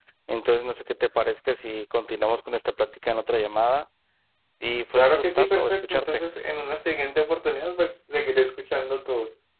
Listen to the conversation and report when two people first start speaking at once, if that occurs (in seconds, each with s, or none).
5.0 s